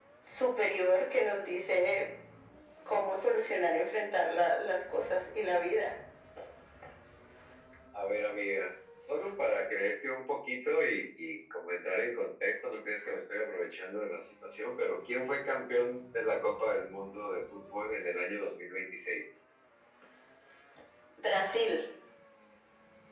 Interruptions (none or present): none